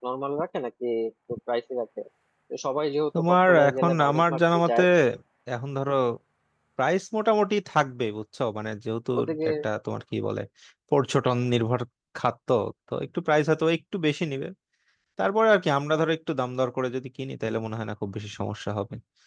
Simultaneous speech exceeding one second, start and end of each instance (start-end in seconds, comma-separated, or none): 3.3-4.8